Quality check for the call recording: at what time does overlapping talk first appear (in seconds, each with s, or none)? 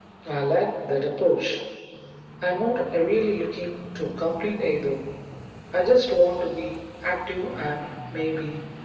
none